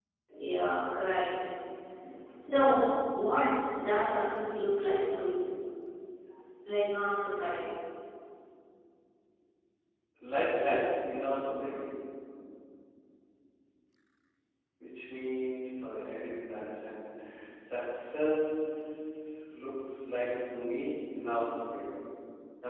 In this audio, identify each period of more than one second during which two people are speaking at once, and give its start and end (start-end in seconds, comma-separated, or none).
none